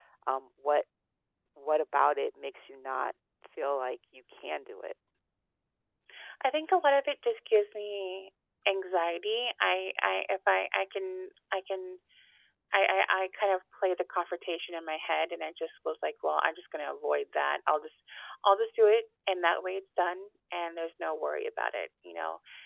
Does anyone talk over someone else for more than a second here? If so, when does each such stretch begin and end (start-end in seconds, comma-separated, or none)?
none